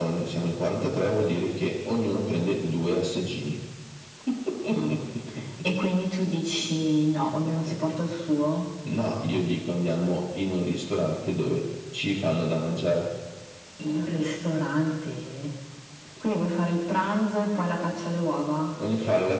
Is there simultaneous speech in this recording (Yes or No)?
No